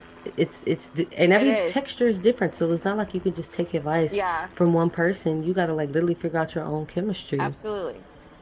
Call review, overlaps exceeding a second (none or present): none